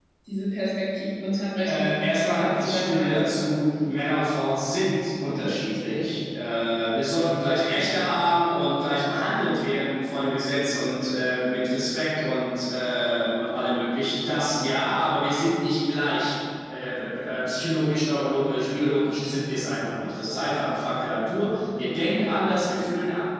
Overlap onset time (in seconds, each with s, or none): 1.7 s